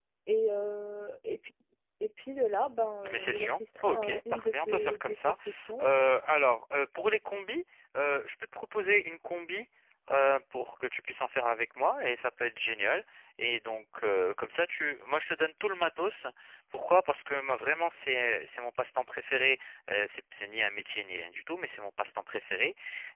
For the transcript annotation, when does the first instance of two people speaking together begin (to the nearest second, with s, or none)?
3 s